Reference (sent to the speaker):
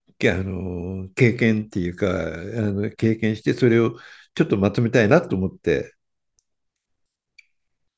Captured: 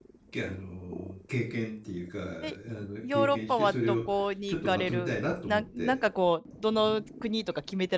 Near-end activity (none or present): present